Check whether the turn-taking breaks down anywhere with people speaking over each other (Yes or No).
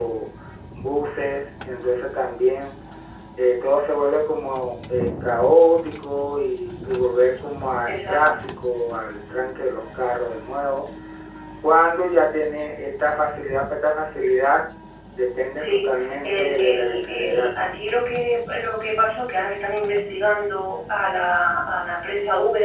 Yes